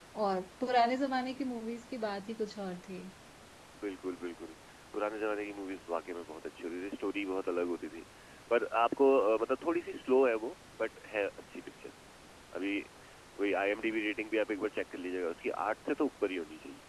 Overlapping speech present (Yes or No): No